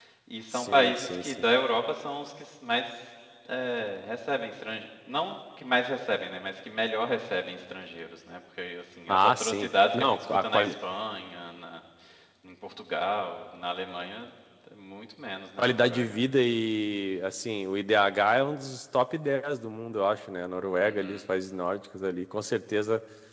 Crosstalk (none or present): present